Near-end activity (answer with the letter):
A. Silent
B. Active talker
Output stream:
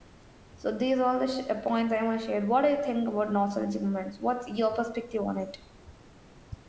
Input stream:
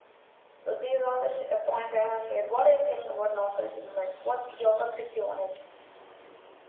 A